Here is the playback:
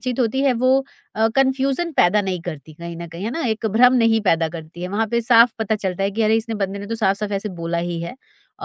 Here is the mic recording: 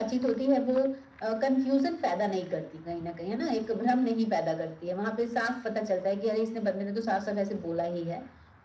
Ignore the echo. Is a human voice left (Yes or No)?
No